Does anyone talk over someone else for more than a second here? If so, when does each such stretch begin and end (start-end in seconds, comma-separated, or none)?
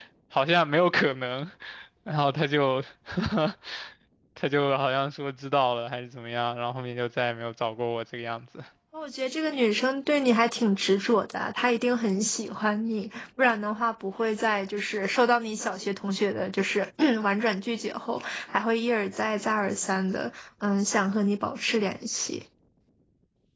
none